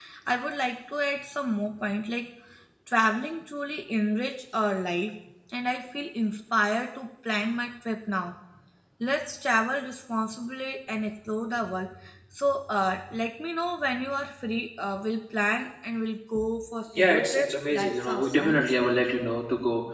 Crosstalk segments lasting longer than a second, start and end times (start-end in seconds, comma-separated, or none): 16.9-19.0